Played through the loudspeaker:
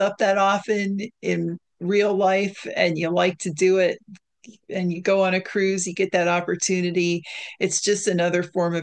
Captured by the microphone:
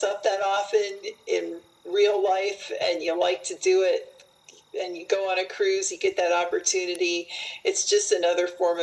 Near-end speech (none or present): none